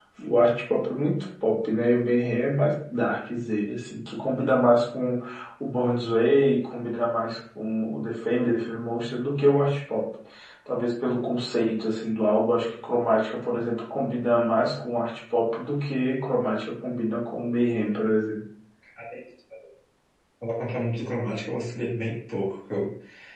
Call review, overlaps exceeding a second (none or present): none